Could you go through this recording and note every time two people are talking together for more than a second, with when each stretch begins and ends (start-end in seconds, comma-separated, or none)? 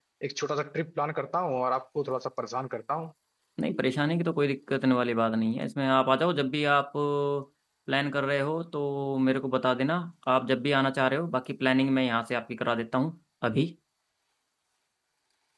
none